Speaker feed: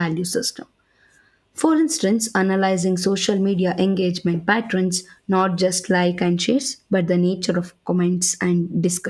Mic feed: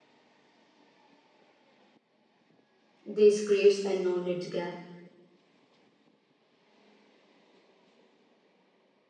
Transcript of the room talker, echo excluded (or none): This creates a knowledge gap,